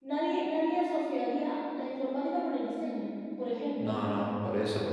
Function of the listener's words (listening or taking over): taking over